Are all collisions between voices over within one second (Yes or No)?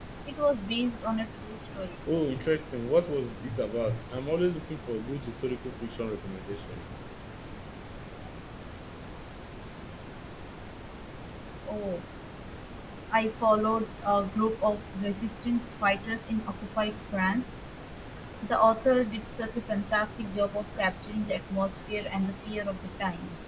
Yes